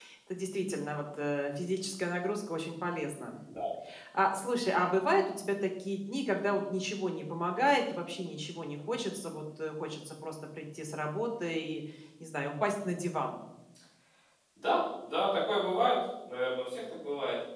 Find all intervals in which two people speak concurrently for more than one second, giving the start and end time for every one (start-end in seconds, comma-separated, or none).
none